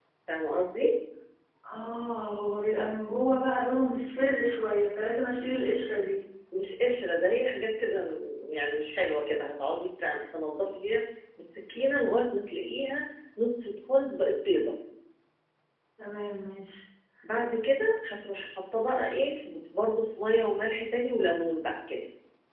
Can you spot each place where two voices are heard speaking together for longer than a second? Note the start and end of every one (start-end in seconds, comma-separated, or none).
none